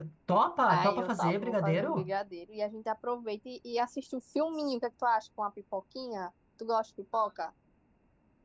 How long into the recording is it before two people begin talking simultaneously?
1 s

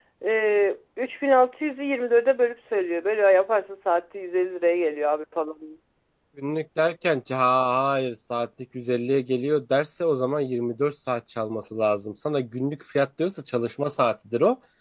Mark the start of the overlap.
none

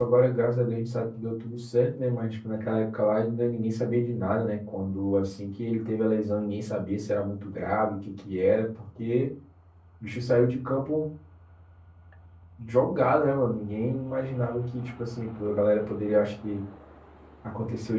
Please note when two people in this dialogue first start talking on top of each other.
none

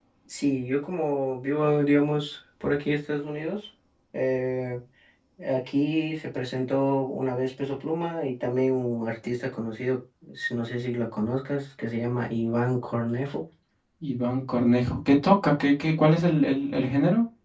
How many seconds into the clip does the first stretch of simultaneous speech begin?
none

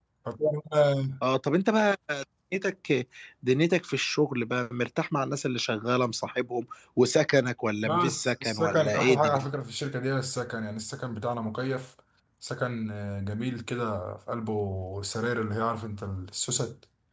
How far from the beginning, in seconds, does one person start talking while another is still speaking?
8 s

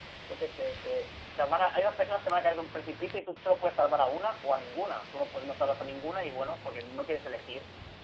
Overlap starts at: none

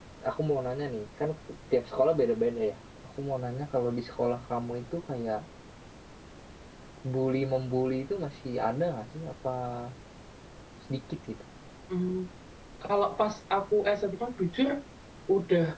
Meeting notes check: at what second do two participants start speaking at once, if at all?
none

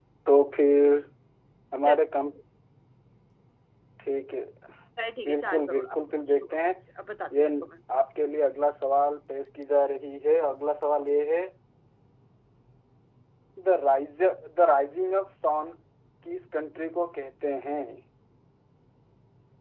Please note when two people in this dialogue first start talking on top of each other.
5 s

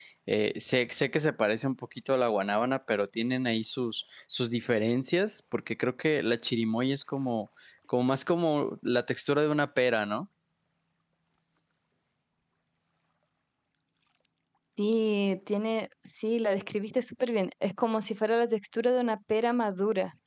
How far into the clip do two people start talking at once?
none

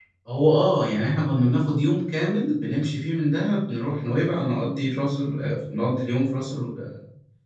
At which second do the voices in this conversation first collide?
none

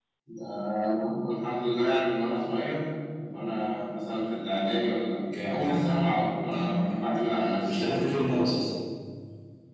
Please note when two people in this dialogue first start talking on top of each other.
5 s

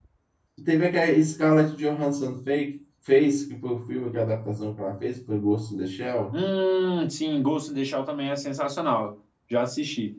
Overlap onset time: none

